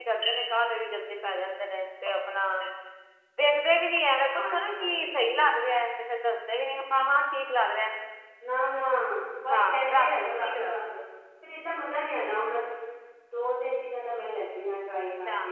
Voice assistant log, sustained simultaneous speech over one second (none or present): present